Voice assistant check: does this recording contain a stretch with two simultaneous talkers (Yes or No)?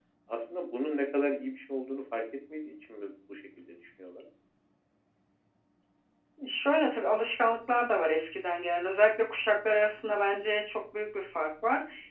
No